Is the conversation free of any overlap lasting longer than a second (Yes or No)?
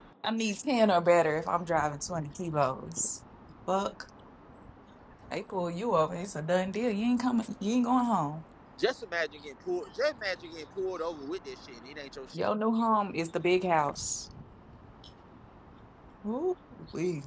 Yes